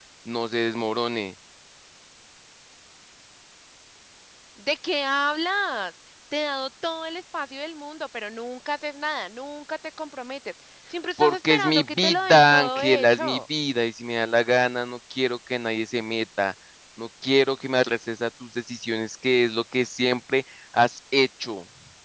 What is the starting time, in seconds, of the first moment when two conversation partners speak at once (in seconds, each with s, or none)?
11.2 s